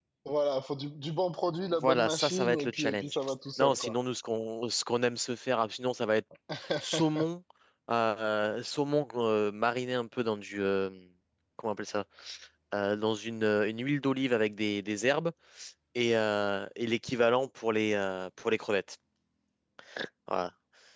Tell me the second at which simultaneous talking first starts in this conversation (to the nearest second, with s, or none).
2 s